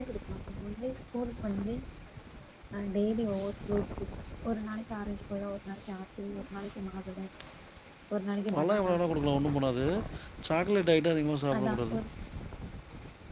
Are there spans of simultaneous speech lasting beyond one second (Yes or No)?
No